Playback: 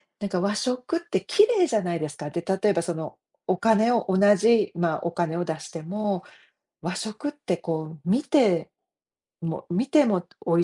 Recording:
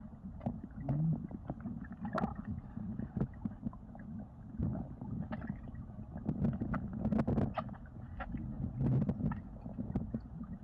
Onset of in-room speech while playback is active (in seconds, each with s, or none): none